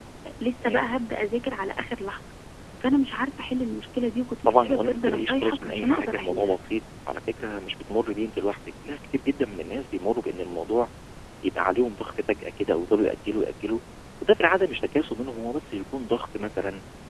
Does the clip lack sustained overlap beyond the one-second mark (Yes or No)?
No